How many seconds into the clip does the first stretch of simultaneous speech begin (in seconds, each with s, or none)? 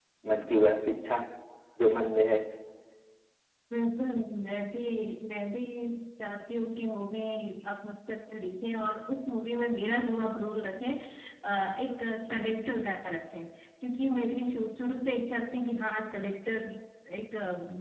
none